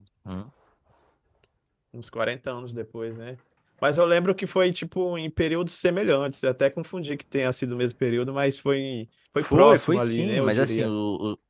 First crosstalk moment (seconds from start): 9.4 s

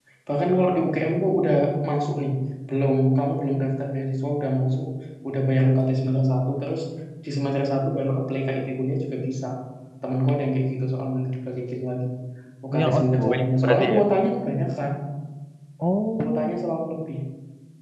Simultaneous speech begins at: 12.7 s

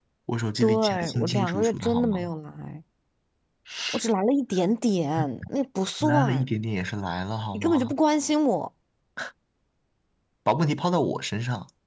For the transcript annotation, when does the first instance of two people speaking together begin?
0.6 s

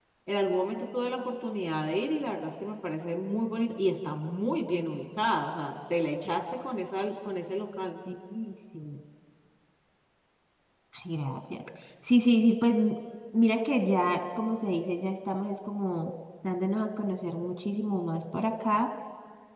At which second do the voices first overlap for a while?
none

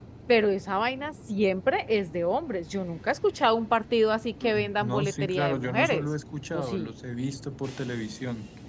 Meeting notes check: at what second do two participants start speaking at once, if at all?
4.4 s

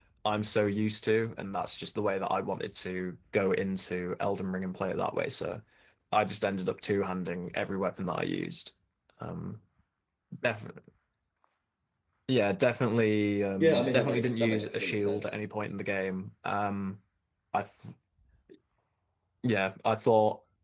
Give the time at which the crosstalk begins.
13.6 s

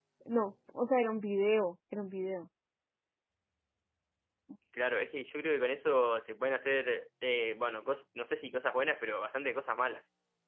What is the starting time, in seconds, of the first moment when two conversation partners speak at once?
none

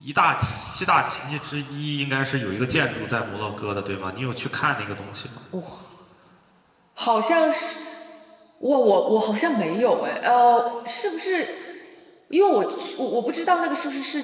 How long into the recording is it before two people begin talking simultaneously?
none

